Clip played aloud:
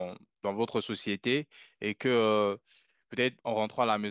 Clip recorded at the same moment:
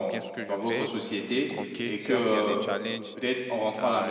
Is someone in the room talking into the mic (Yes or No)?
Yes